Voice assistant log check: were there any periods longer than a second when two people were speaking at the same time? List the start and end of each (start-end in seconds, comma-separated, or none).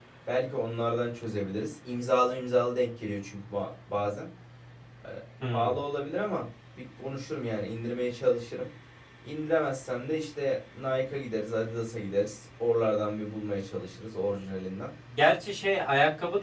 none